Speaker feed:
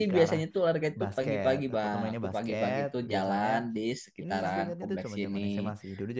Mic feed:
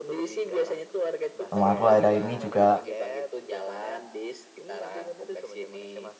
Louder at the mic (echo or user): user